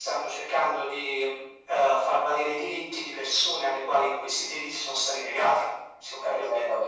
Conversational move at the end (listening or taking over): taking over